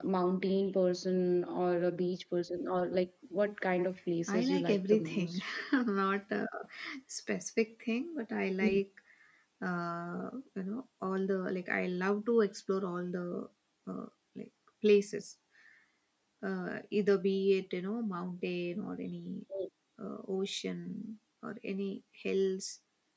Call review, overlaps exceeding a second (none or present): present